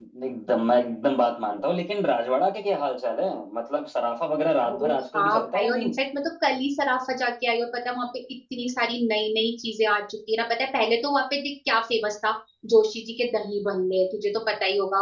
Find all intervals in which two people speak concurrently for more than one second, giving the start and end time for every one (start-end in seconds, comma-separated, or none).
4.6-5.9